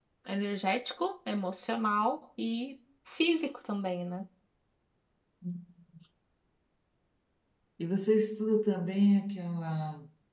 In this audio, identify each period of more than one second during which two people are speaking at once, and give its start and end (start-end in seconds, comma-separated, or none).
none